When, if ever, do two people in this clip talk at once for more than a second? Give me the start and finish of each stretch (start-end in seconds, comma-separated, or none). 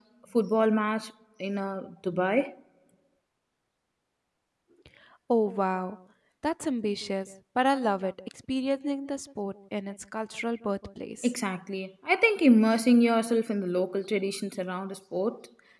none